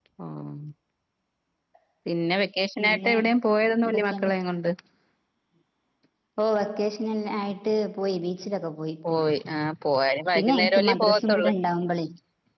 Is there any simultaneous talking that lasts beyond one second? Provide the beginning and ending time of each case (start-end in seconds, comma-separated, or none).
10.3-11.5